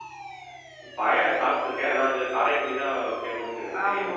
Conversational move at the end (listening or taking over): taking over